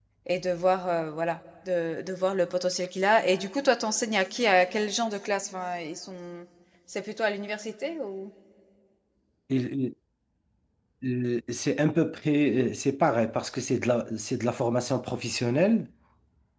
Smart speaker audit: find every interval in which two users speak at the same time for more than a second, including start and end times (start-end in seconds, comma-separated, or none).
none